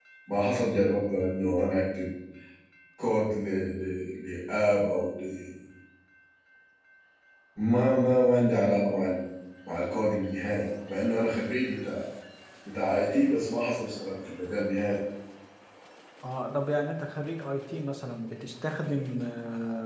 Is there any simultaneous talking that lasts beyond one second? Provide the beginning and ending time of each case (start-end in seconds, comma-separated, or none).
none